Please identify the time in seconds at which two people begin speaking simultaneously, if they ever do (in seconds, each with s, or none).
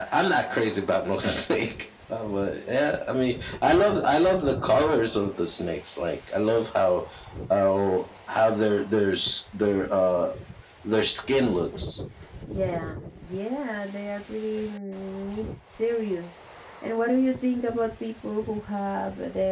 none